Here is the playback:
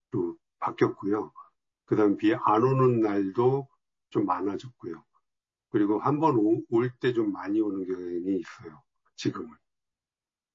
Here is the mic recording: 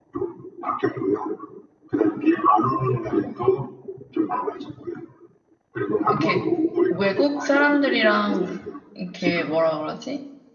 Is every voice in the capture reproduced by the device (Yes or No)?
No